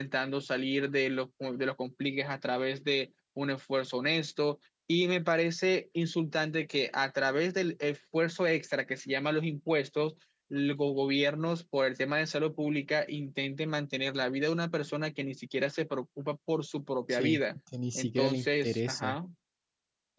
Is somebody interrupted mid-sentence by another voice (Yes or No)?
Yes